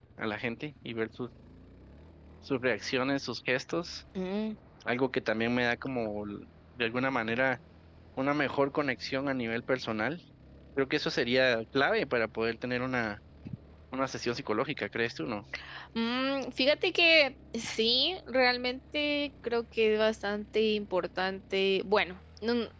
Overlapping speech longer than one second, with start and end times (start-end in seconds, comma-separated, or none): none